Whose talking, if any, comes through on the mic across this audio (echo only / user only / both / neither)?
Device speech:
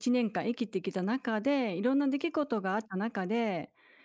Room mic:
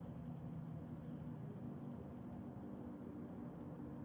neither